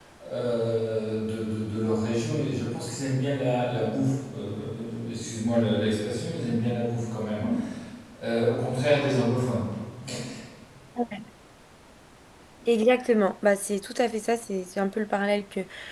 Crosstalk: none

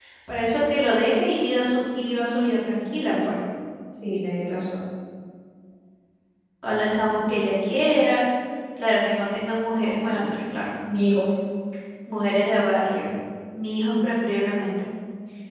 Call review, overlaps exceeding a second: none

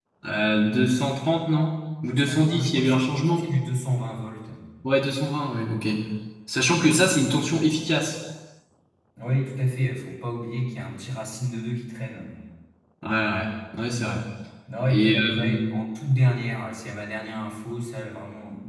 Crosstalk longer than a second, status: present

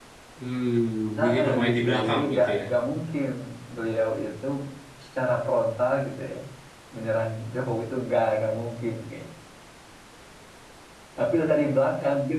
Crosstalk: present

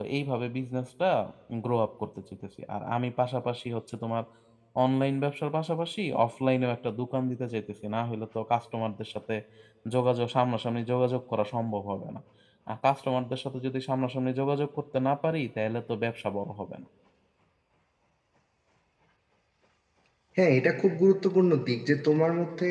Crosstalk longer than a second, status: none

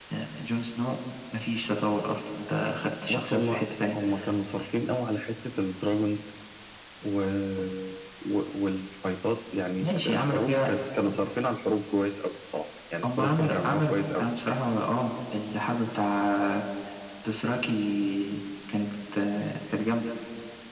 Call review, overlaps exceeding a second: present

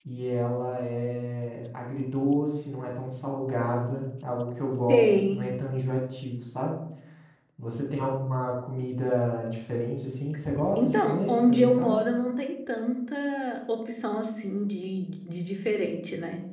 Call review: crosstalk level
present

